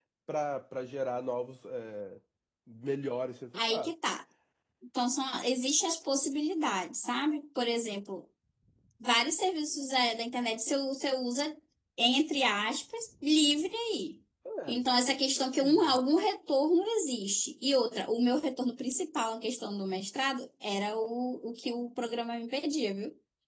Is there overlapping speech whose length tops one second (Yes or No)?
No